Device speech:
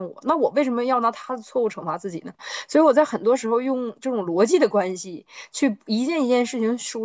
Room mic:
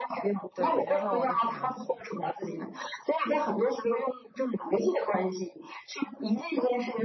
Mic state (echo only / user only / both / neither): both